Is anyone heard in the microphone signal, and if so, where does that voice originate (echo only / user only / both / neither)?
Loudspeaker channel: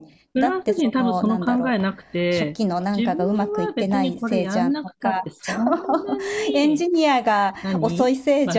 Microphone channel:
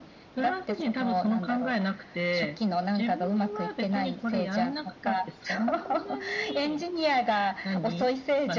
echo only